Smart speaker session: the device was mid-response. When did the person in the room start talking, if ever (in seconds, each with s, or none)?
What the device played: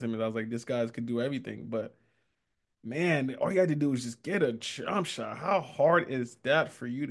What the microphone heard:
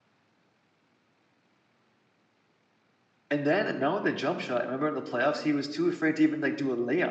3.3 s